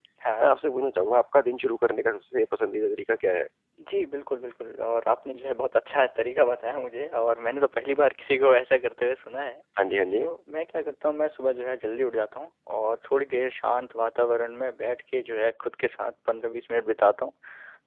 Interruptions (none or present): none